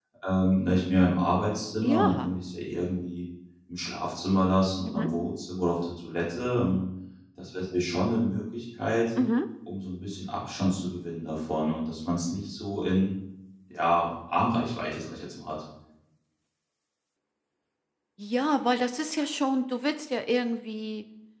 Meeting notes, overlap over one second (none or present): none